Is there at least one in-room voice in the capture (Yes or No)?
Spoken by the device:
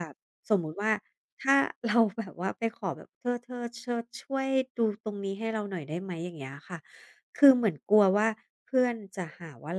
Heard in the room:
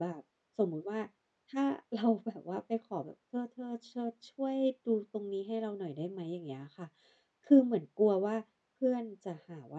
No